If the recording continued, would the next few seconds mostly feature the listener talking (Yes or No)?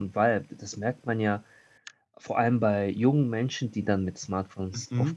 No